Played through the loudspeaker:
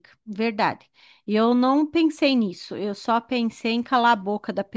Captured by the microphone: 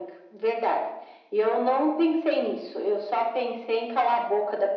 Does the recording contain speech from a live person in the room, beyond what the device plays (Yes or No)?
No